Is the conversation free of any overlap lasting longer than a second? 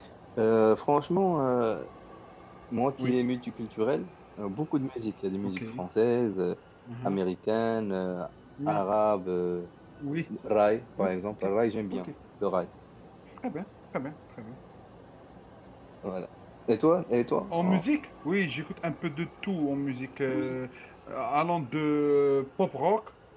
Yes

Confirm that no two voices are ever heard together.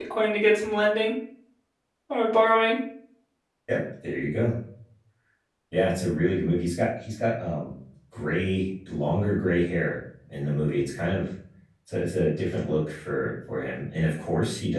Yes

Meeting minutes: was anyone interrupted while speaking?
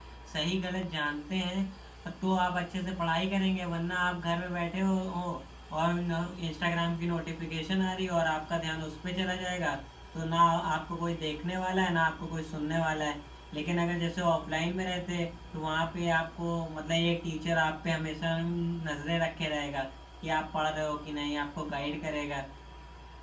No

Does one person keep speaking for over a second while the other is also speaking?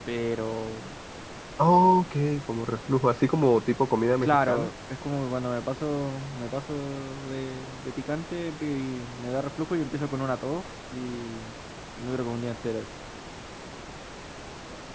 No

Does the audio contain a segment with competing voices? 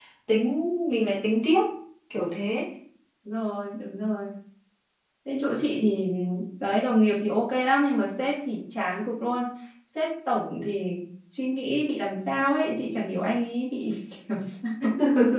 No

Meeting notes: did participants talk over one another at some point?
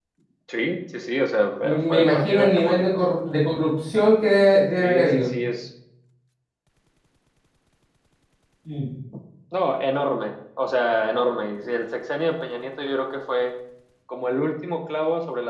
Yes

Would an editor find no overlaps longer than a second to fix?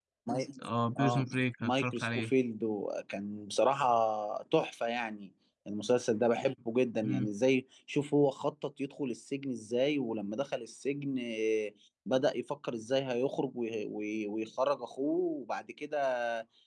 No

